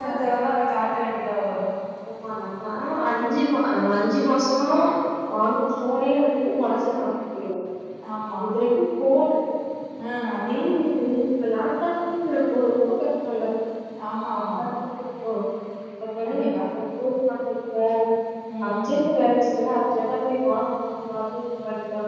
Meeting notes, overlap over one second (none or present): none